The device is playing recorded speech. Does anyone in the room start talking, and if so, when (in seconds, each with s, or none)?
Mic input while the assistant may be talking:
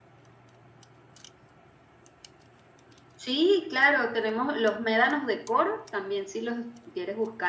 none